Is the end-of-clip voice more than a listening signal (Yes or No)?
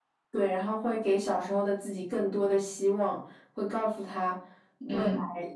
No